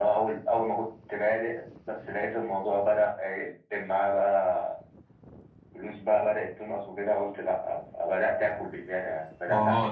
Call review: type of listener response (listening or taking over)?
taking over